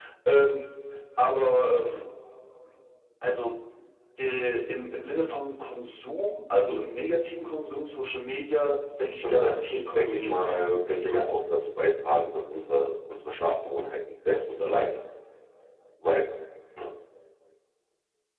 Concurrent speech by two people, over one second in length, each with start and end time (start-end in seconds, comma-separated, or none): 9.2-11.2